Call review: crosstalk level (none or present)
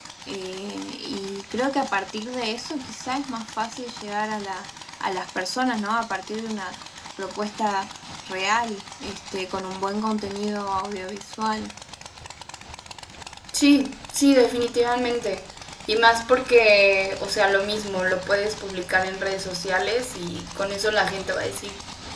none